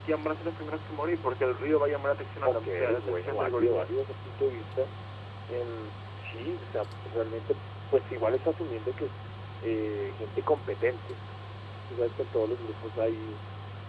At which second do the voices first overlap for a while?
2.4 s

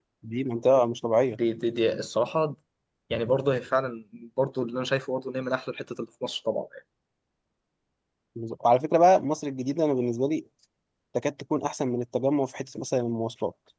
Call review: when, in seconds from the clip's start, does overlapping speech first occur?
none

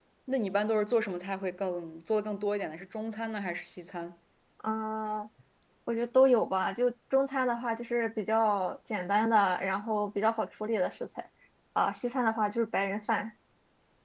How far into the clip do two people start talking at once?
none

